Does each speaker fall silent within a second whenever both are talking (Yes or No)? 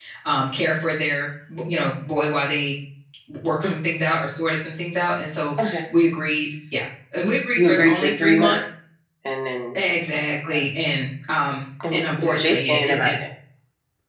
No